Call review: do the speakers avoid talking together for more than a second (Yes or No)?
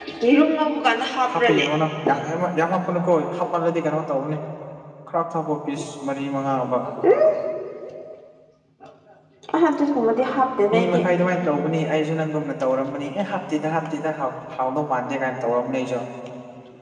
Yes